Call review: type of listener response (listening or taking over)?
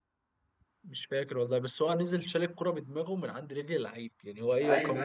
taking over